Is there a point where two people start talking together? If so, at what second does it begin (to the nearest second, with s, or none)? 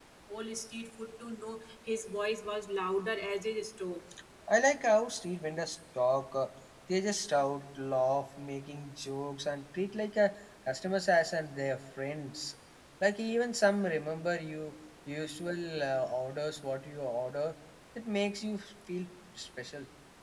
none